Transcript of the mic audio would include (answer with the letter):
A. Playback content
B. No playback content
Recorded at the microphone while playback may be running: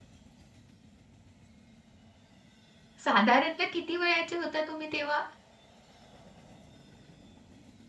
B